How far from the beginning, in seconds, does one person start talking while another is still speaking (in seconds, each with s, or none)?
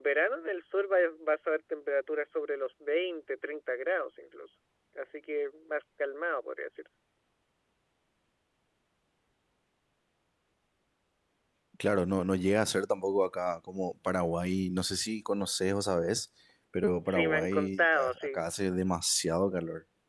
17.1 s